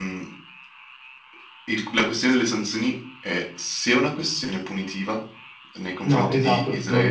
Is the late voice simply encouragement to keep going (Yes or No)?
No